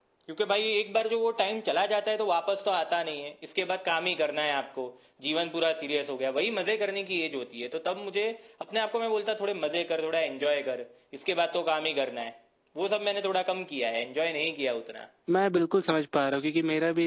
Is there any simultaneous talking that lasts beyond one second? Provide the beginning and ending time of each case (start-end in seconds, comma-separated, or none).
none